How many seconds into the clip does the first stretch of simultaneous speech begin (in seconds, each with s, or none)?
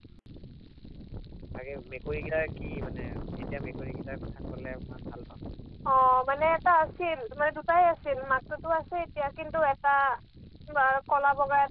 none